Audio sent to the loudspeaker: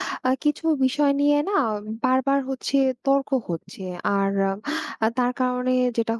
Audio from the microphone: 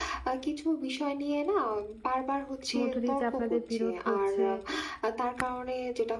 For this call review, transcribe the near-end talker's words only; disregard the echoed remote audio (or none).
মধ্য দিয়ে যে আপনাদের বিরোধ হচ্ছে